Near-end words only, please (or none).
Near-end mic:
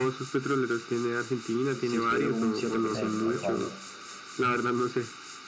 sí, tal cual.